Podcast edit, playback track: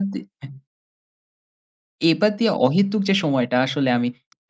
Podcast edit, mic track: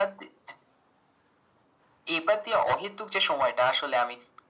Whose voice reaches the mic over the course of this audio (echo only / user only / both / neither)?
echo only